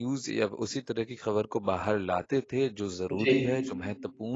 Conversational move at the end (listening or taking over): listening